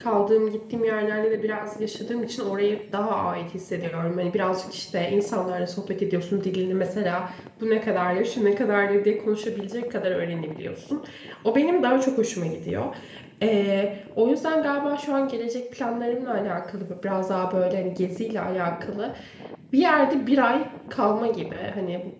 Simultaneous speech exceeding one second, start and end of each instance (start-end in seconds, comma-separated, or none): none